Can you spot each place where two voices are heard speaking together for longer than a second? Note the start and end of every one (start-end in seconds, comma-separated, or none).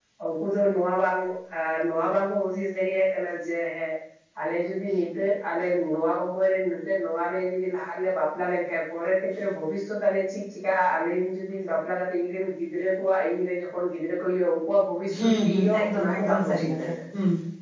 15.2-16.9